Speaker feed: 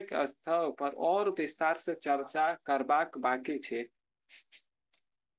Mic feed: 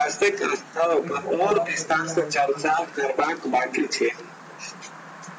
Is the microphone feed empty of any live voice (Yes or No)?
No